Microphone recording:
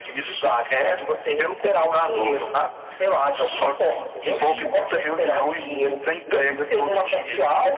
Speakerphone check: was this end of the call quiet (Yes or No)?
No